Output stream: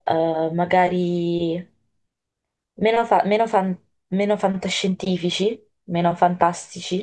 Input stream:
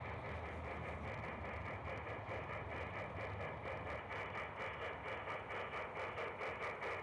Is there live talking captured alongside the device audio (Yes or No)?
No